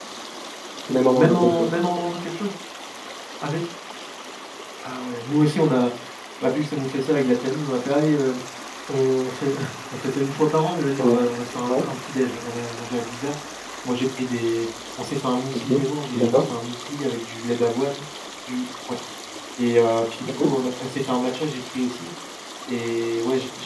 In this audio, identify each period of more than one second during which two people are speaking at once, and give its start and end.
none

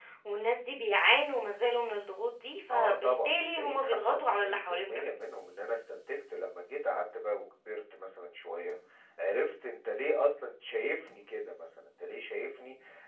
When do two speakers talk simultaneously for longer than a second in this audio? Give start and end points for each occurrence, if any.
2.7-5.1

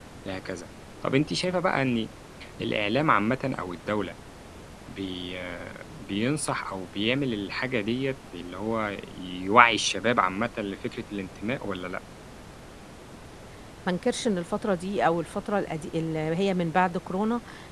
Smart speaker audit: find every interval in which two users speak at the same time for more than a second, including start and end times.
none

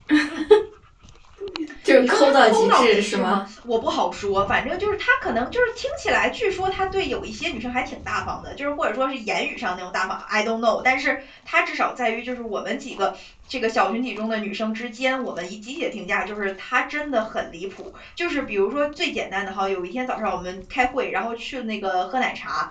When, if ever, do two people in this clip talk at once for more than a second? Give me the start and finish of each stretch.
2.0-3.4

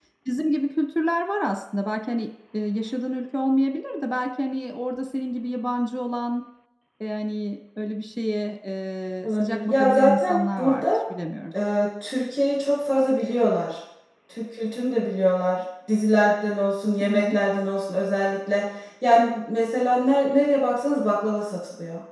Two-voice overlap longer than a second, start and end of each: 9.2-10.8

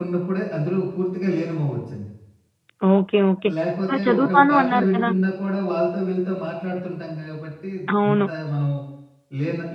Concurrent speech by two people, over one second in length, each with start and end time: 3.9-5.1

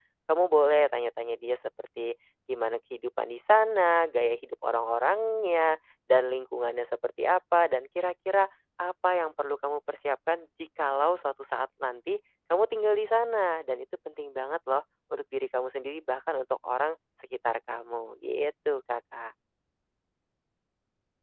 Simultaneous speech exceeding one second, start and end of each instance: none

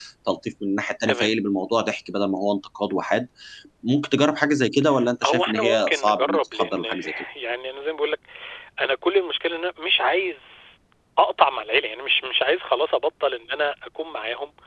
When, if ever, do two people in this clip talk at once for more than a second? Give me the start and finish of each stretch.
5.2-7.0

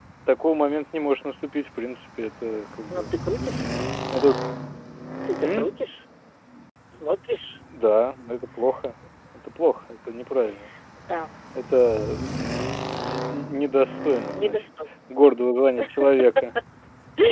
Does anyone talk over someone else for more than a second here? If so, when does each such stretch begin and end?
none

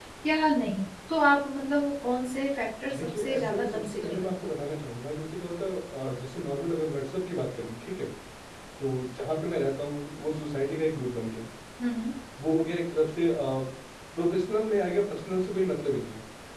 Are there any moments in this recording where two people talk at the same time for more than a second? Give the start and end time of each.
2.9-4.3

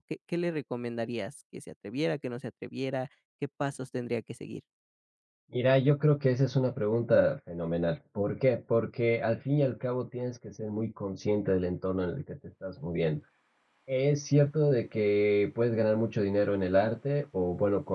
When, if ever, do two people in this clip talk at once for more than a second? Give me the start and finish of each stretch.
none

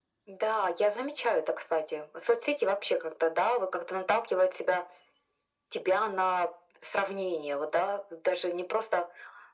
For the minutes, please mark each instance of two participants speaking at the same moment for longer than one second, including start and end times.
none

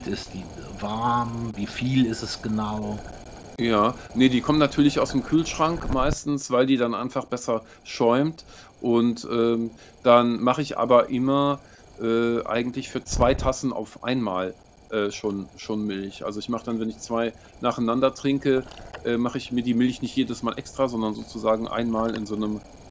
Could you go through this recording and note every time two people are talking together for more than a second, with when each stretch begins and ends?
none

